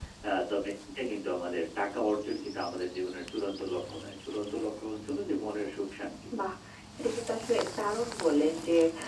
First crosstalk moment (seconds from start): none

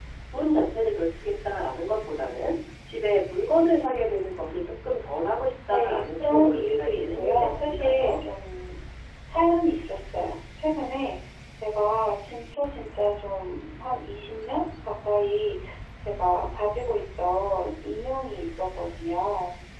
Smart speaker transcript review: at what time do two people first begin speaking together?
5.7 s

